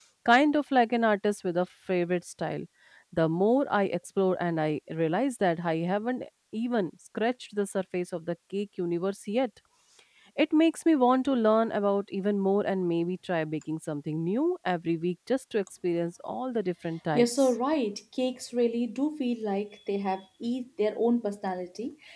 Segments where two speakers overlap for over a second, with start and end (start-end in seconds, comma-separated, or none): none